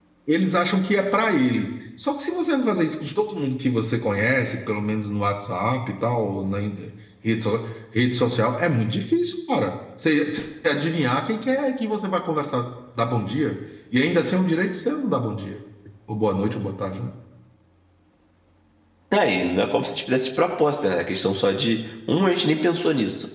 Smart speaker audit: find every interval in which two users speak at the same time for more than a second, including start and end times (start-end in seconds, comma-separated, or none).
none